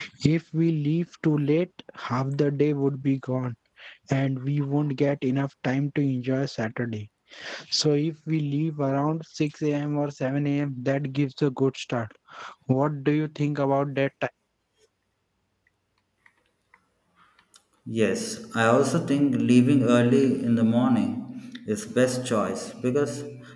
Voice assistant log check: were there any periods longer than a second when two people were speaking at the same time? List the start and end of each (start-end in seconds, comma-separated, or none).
none